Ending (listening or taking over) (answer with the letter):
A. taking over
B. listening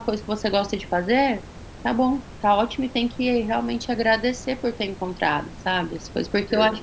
B